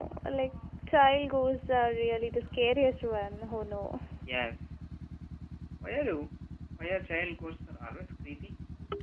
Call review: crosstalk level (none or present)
none